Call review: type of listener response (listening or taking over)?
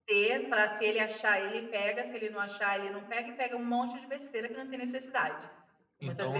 taking over